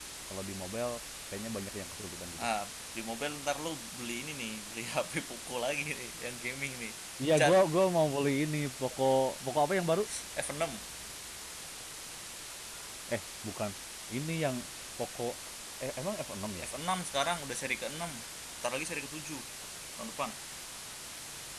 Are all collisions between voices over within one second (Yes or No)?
Yes